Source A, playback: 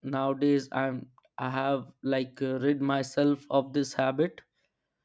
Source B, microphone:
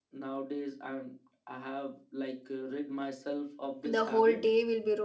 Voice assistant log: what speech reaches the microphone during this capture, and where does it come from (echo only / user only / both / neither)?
both